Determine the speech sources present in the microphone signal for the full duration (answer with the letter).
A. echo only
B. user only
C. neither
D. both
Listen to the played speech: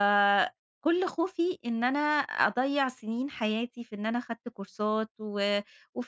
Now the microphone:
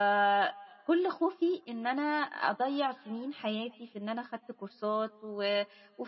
A